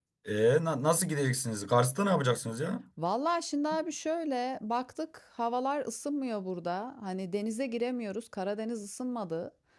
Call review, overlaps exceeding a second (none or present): none